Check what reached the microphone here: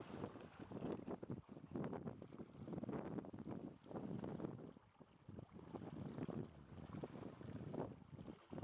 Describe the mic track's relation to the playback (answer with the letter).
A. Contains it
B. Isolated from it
B